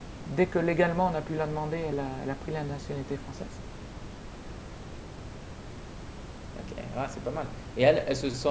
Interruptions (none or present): none